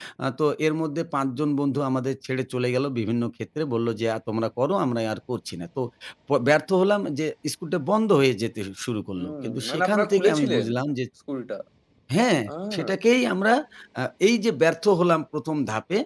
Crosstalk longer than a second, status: present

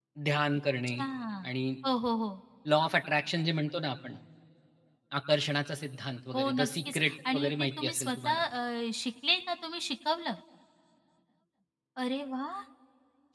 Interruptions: present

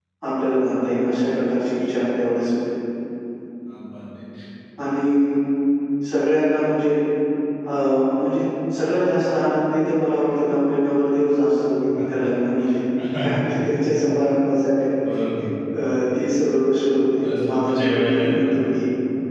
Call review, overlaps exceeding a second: present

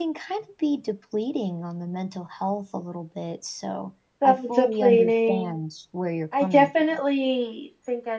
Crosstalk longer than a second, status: present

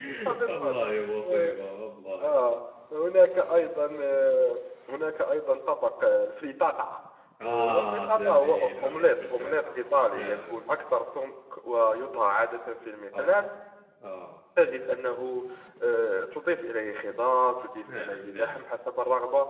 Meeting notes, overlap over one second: present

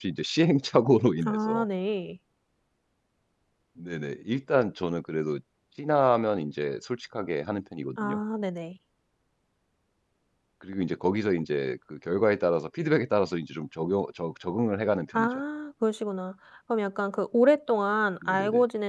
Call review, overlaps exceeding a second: none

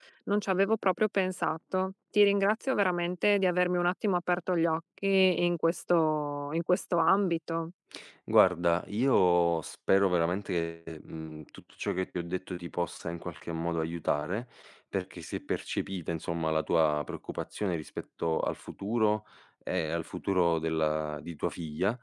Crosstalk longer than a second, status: none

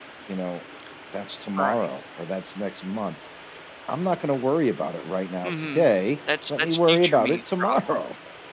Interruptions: present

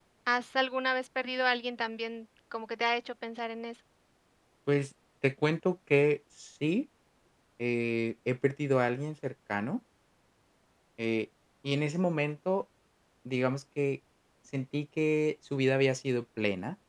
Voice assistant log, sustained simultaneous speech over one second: none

